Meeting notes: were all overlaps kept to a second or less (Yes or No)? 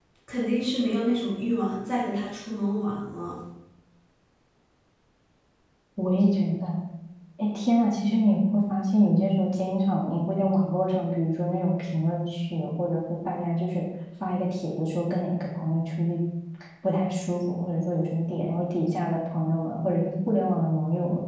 Yes